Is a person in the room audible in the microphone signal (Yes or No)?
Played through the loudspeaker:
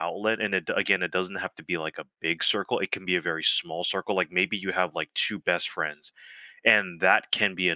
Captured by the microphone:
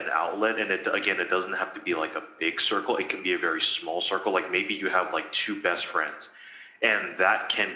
No